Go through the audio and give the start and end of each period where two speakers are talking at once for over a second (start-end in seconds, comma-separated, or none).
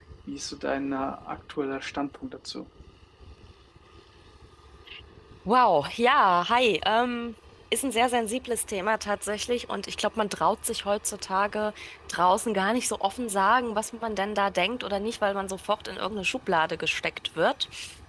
none